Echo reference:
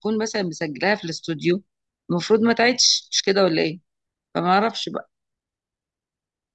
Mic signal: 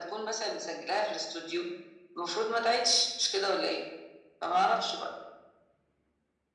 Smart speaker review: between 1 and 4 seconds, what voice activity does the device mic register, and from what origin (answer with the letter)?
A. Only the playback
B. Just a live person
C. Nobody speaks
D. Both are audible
A